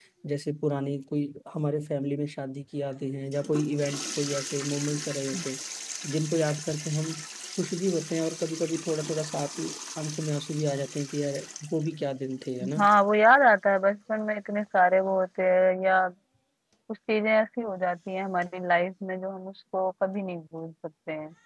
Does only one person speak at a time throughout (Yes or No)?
Yes